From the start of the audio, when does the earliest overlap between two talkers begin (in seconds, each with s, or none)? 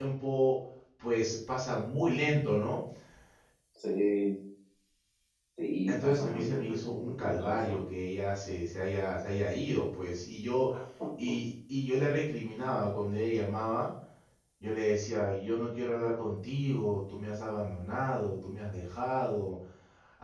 5.9 s